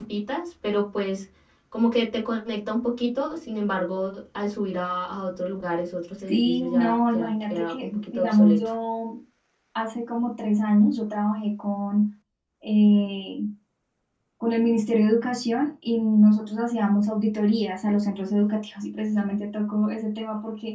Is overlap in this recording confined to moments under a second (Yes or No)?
No